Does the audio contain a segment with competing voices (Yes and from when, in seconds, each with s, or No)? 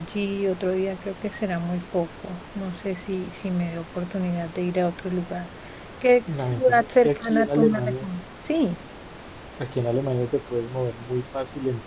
Yes, from 6.3 s